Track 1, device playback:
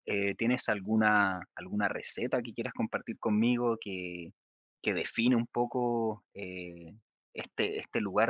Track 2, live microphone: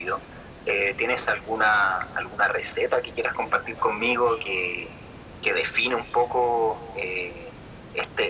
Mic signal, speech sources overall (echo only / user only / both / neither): echo only